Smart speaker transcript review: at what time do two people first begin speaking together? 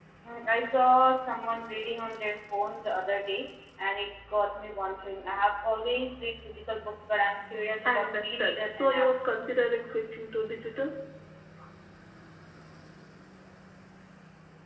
7.8 s

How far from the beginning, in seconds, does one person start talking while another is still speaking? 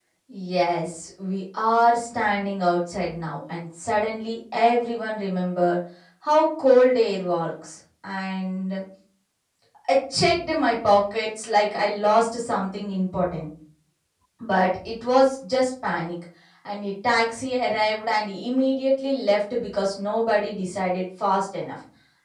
none

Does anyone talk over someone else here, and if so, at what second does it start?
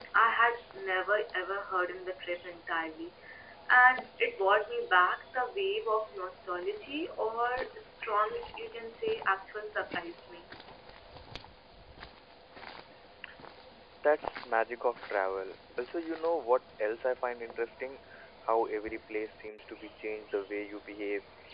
none

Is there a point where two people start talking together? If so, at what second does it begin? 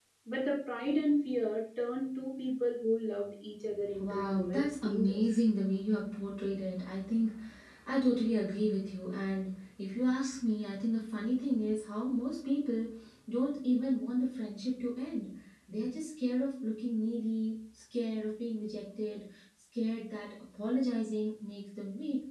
4.0 s

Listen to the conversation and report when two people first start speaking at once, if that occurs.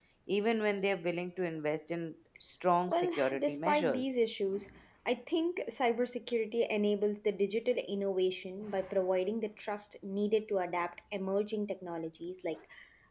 2.9 s

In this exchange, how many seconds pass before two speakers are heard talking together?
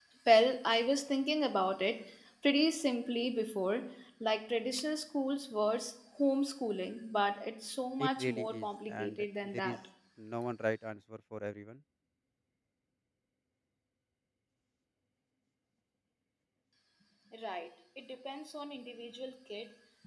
8.0 s

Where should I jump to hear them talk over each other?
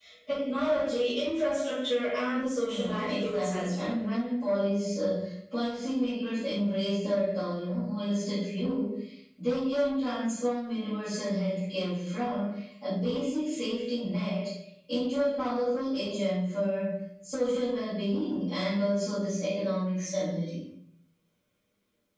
2.6 s

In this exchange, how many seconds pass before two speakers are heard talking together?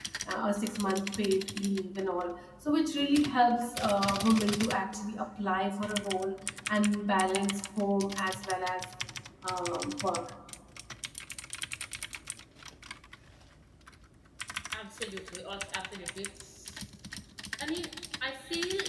none

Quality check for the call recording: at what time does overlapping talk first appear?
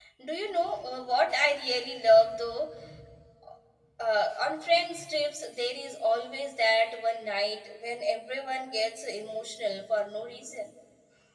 none

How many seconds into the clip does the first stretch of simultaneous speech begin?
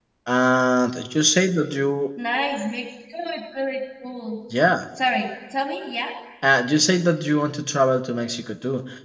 none

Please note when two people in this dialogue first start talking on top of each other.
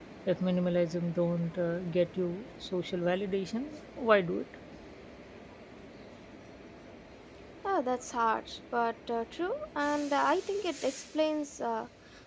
none

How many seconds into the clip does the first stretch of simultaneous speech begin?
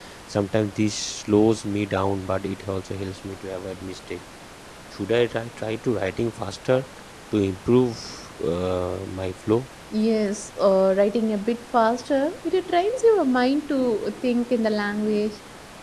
none

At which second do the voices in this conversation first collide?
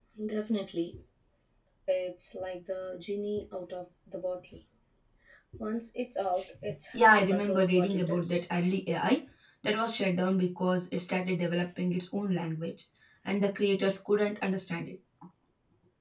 6.9 s

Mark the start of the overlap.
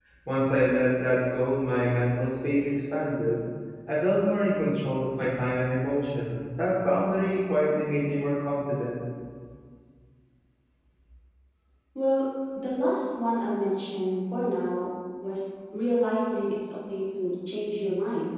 none

